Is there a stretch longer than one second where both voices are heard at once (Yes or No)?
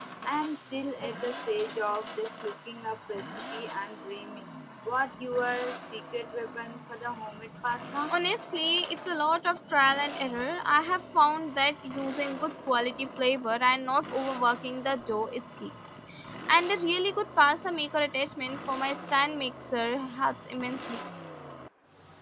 No